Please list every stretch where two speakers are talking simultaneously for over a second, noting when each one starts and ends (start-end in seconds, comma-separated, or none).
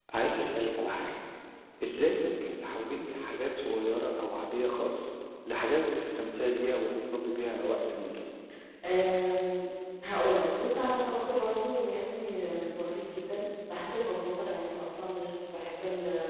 none